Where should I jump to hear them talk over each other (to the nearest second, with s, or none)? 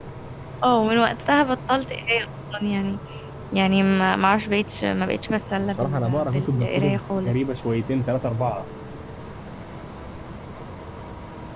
6 s